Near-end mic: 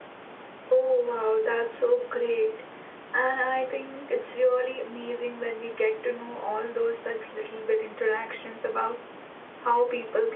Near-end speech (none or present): none